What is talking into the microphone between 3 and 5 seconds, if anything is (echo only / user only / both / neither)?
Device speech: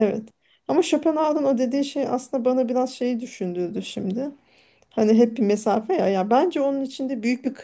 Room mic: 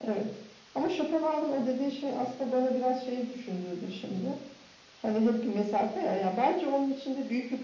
echo only